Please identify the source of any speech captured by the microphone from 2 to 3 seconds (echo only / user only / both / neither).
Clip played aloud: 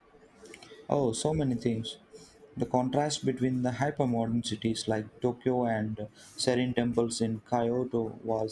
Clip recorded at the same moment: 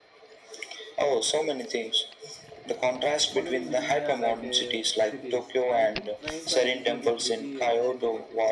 echo only